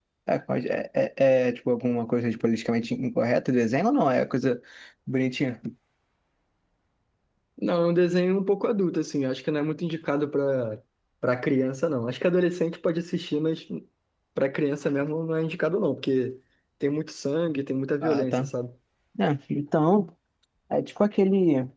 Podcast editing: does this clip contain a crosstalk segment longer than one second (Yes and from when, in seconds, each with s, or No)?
No